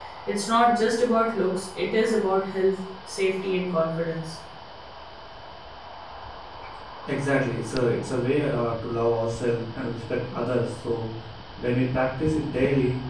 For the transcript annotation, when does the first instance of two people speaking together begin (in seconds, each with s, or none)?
none